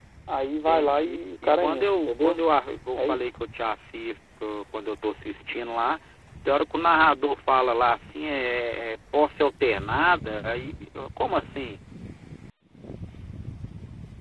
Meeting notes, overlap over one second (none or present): present